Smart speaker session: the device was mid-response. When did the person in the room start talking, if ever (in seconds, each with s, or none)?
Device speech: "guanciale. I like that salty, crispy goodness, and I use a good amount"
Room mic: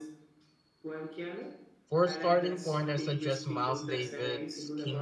1.9 s